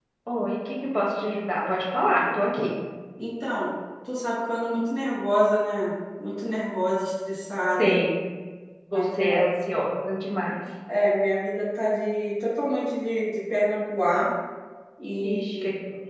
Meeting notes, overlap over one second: none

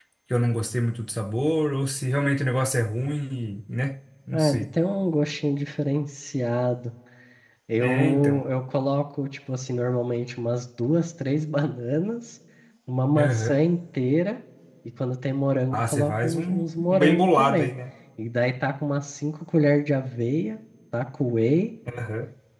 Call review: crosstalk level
present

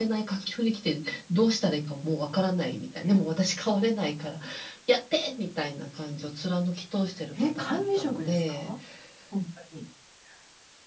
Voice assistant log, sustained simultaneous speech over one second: present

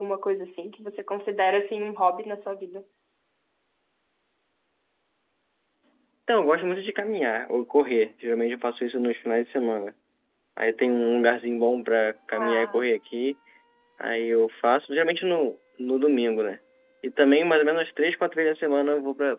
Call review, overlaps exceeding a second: none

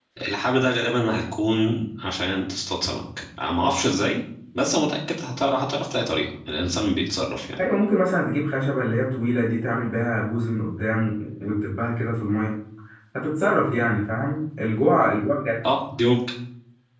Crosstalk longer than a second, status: none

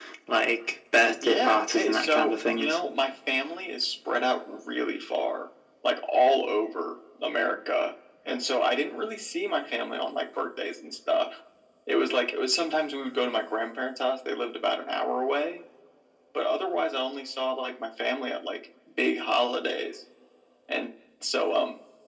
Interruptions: present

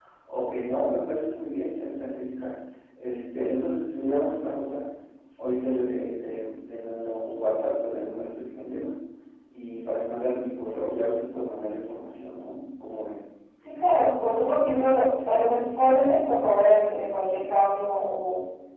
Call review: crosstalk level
none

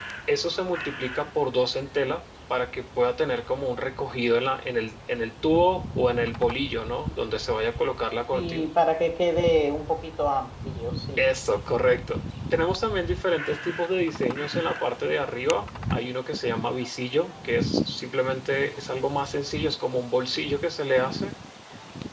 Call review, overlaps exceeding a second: none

